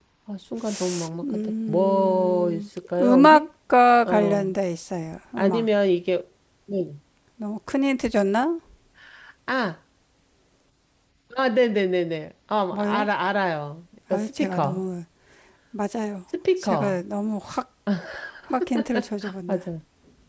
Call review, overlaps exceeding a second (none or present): present